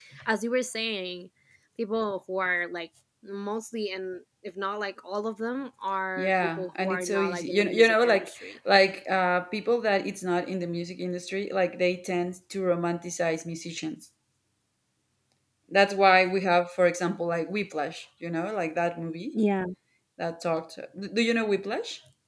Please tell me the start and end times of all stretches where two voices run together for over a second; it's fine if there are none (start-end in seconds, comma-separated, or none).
6.2-8.5